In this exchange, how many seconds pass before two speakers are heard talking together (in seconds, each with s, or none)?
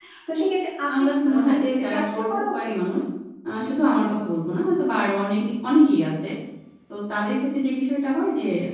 1.0 s